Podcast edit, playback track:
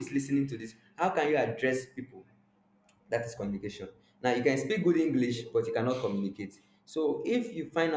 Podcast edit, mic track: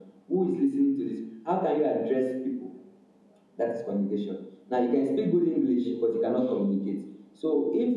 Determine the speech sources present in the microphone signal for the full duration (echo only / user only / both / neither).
echo only